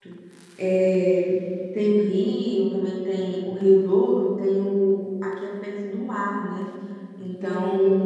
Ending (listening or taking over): listening